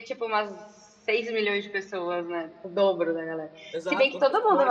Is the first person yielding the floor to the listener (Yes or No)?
Yes